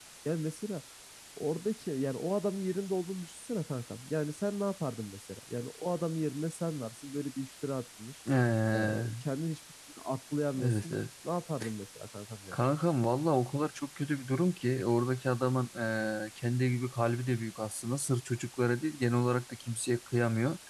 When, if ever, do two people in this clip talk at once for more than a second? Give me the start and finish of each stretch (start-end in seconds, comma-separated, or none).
none